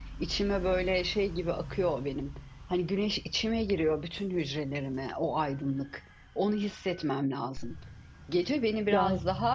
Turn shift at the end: No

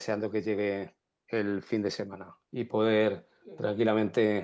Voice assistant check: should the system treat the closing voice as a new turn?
No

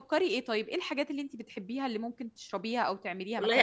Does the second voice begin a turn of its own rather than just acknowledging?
Yes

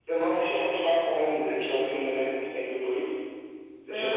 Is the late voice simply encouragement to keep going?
No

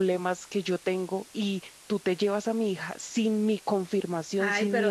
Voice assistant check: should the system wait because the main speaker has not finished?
No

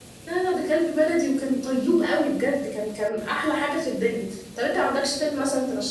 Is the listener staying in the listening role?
Yes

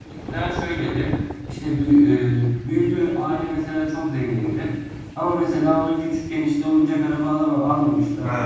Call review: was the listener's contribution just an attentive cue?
Yes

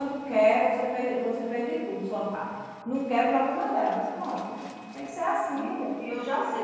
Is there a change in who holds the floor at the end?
Yes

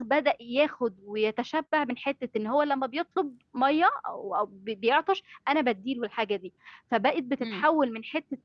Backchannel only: Yes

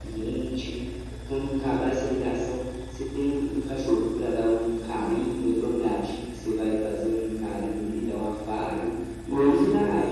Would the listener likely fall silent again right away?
Yes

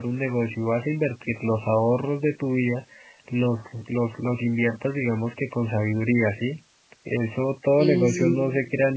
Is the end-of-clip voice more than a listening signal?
No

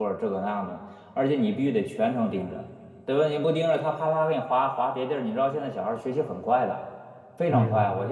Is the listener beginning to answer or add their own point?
No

